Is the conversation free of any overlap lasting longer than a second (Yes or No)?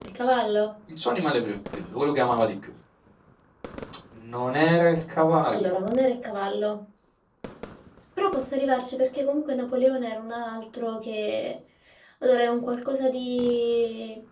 Yes